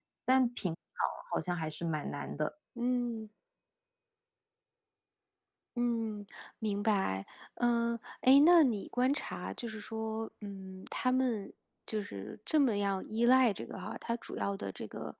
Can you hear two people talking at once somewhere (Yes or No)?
No